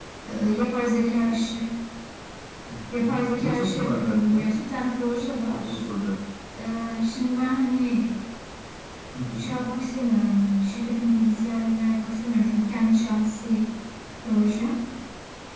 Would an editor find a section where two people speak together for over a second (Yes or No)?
Yes